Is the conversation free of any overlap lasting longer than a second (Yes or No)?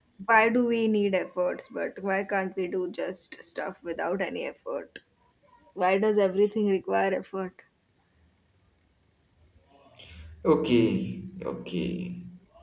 Yes